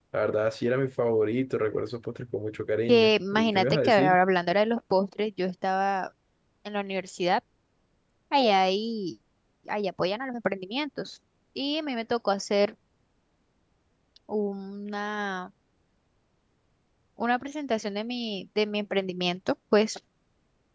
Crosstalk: present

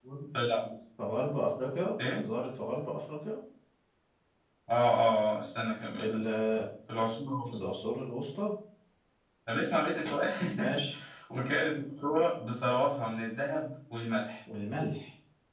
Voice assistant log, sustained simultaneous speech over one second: none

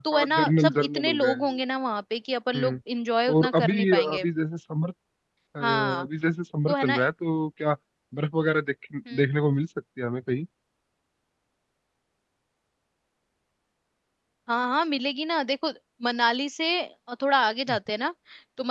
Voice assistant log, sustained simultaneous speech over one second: present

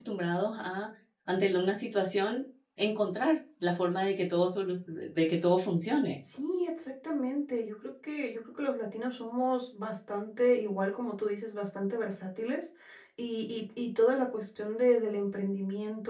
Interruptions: none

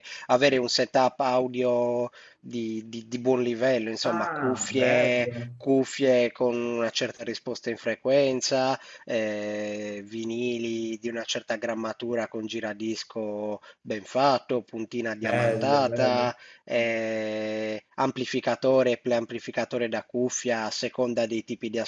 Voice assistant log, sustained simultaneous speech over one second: present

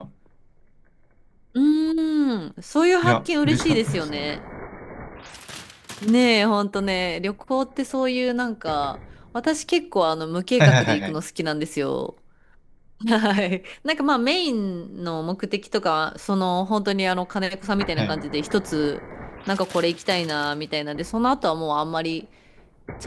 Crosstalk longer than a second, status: present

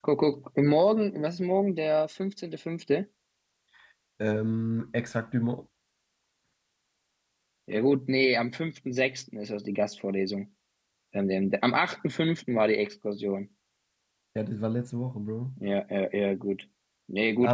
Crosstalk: none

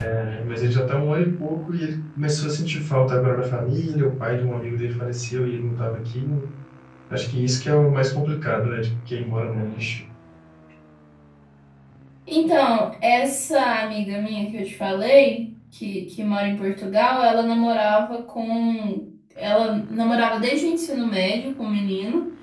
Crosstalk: none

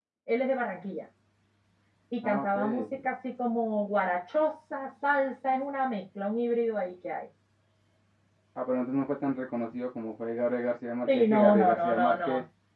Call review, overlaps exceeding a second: present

